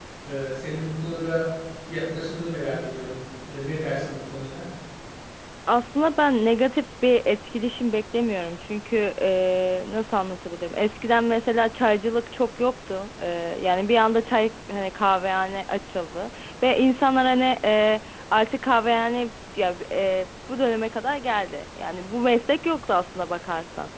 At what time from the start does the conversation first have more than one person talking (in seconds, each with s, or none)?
none